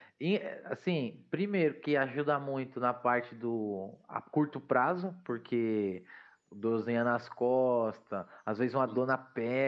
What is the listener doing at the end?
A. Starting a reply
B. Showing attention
B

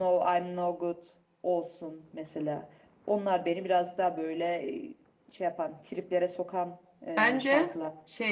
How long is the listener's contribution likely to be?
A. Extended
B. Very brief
A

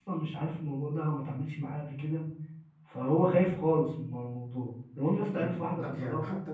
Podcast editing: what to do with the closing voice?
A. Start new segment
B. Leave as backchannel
A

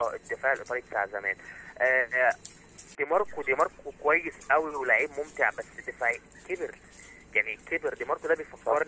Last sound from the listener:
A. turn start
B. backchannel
B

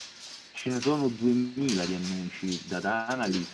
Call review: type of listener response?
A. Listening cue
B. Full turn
A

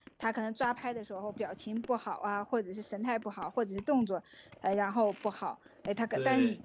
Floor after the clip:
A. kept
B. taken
A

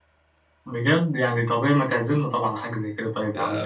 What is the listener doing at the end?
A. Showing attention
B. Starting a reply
B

